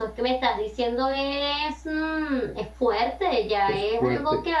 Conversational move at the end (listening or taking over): listening